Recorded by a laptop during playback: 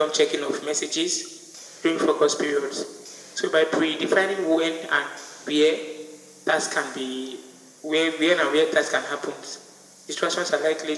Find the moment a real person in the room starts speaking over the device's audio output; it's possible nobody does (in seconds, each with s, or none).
none